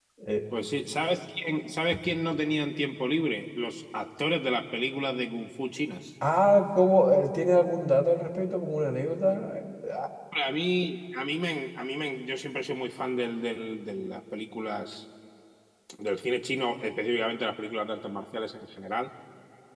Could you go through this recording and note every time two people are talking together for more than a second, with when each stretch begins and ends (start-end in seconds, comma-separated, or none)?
none